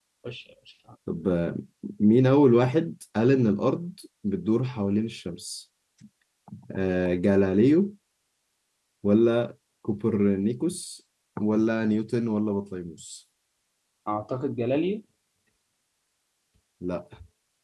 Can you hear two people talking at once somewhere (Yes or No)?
No